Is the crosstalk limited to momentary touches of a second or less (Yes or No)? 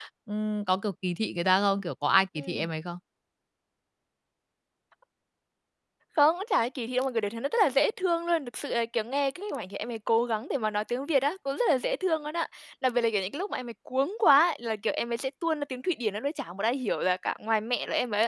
Yes